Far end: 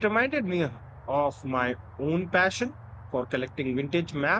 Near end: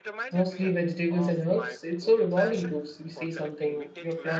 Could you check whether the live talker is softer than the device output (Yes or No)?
No